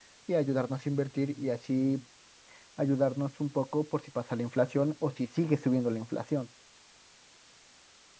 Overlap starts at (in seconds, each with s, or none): none